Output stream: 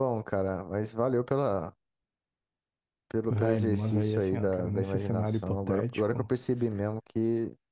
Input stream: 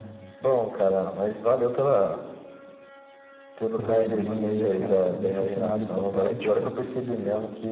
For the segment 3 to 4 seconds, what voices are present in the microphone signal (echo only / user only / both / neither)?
echo only